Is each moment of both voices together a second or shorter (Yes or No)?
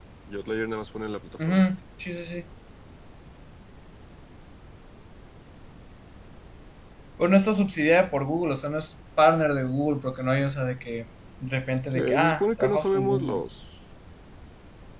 No